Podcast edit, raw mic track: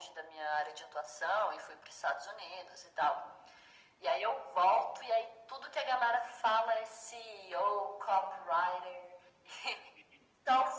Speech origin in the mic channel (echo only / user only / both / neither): echo only